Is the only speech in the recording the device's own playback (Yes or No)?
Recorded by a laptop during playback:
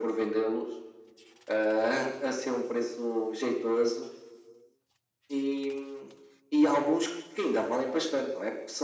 Yes